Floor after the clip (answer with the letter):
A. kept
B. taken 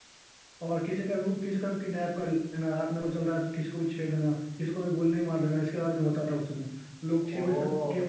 A